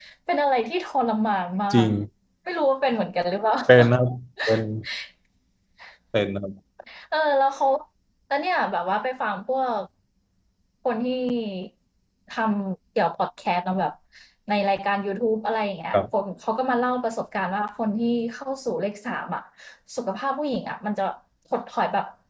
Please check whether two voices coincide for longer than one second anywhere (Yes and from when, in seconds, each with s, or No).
No